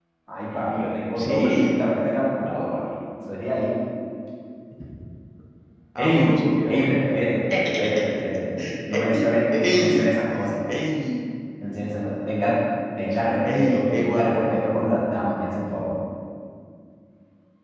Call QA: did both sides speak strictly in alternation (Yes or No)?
No